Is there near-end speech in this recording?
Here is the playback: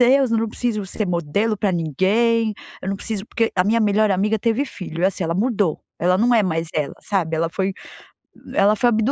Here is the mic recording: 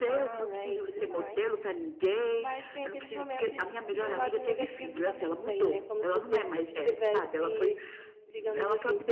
Yes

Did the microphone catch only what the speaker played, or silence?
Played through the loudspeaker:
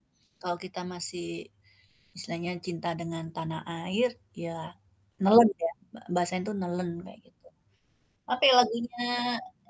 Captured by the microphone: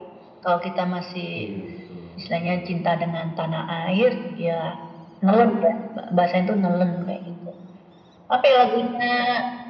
No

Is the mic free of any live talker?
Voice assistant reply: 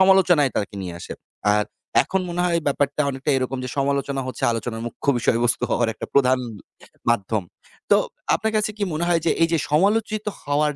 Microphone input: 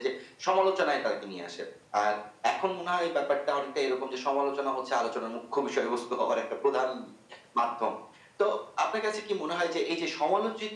Yes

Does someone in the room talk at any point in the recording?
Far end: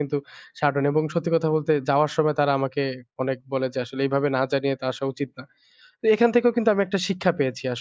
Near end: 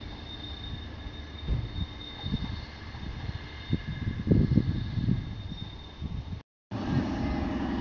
No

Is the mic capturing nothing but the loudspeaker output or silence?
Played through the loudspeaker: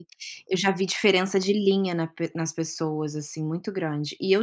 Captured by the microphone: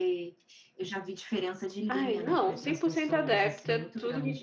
No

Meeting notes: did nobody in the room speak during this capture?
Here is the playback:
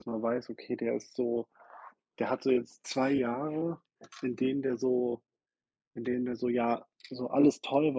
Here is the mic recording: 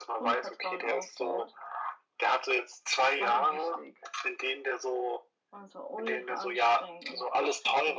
No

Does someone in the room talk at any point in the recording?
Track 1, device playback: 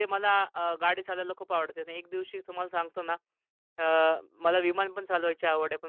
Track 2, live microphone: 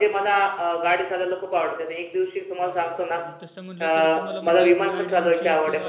Yes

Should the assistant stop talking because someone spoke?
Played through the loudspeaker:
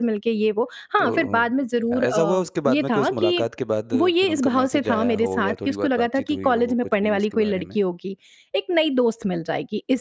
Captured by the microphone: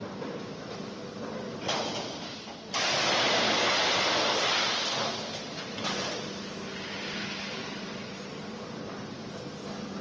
No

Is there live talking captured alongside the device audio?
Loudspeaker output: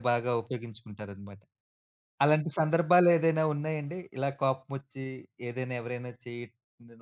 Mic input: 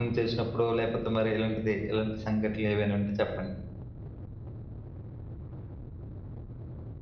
Yes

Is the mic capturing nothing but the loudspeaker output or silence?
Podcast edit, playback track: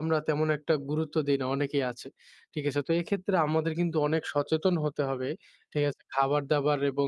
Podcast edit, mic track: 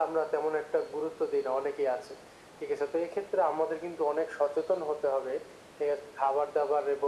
Yes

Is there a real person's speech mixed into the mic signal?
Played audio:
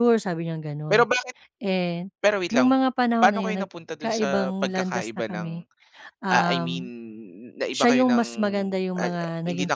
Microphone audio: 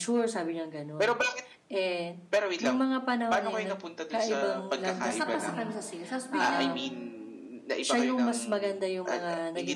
Yes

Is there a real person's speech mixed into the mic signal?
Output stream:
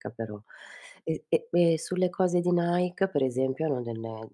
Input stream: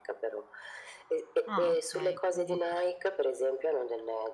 Yes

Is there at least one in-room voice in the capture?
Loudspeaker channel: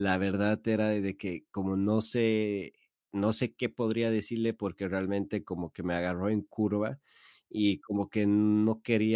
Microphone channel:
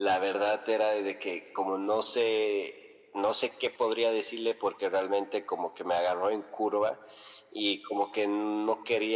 No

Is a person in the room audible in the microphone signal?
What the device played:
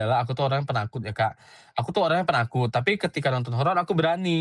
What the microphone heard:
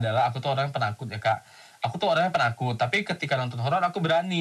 No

